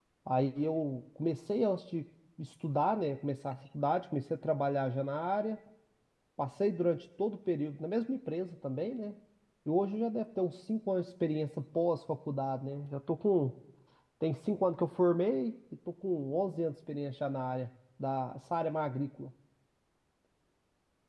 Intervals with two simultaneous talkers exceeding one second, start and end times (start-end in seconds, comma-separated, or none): none